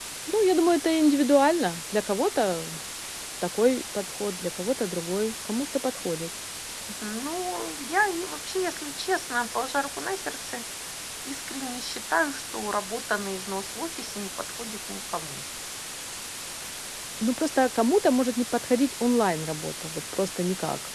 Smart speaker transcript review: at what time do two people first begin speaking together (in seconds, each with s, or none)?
none